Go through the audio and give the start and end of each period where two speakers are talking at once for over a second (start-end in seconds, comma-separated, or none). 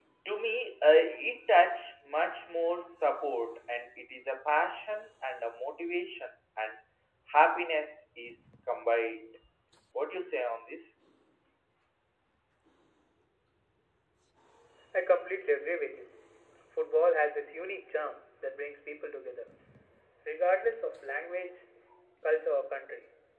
none